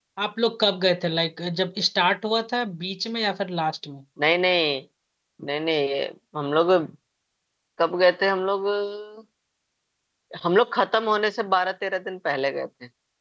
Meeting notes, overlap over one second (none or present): none